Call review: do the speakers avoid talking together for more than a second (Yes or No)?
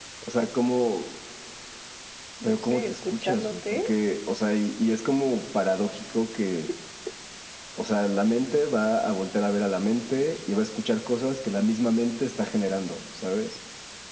No